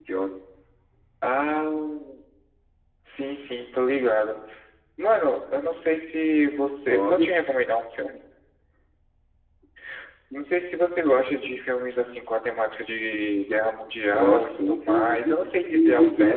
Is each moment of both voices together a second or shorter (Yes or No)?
No